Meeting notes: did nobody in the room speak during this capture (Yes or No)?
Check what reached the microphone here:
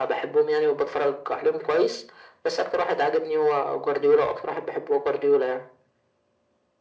Yes